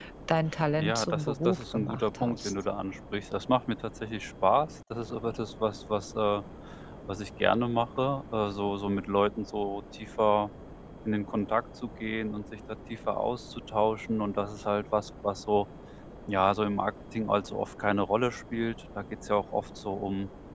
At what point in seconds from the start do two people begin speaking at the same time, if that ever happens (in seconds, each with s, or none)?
0.8 s